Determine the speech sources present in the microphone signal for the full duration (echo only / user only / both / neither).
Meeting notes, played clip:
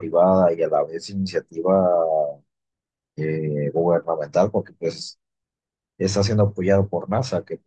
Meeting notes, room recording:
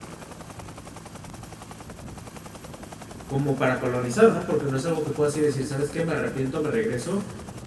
user only